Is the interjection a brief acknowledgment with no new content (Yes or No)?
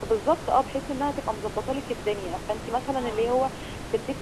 Yes